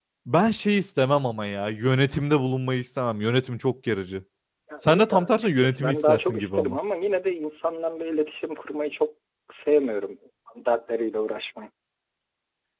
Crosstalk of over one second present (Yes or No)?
Yes